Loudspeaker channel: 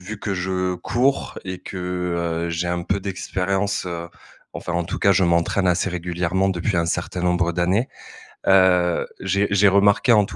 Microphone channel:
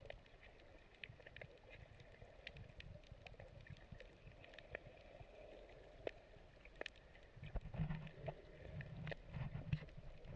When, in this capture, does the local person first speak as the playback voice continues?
none

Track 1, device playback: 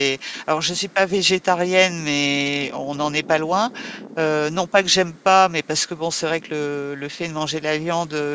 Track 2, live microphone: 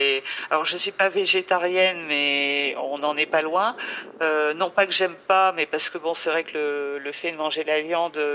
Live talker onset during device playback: none

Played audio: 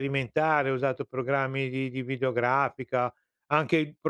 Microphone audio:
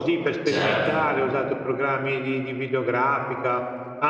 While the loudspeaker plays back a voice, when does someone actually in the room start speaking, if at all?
0.5 s

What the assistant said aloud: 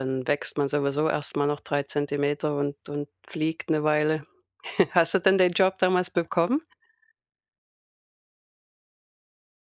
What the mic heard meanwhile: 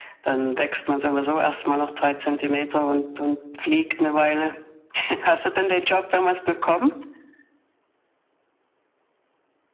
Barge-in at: none

